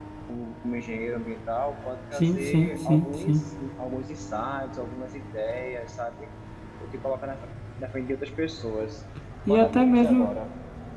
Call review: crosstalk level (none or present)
present